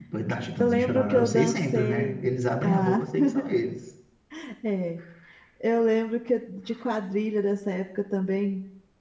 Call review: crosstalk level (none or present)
present